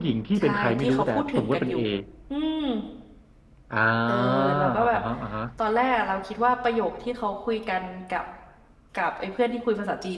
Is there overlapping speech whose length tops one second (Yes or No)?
Yes